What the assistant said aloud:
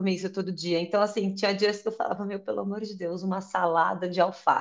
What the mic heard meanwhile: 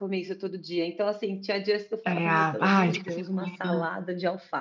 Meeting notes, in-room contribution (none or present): present